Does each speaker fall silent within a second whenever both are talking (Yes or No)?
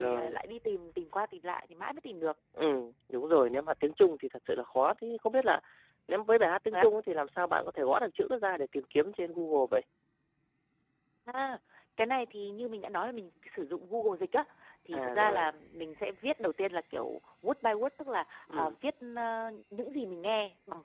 Yes